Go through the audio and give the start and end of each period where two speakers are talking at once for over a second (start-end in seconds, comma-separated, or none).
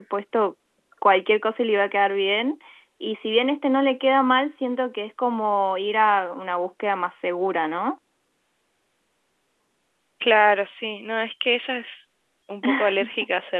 none